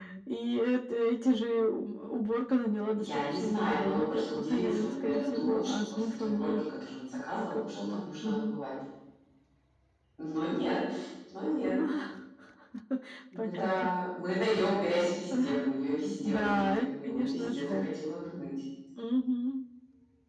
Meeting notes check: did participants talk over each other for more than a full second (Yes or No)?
Yes